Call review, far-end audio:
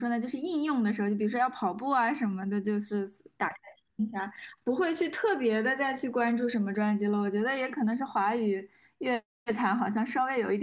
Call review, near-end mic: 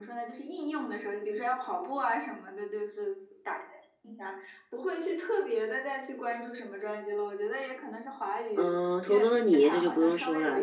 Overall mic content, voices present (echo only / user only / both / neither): both